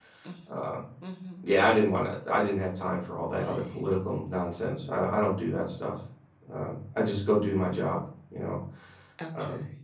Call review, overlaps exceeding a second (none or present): none